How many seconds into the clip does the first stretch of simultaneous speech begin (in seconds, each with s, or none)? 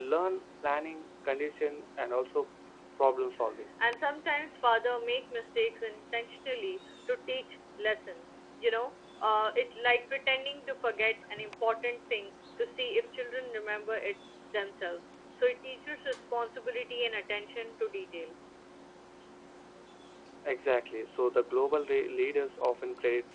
none